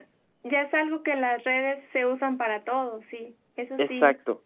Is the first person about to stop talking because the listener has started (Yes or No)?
Yes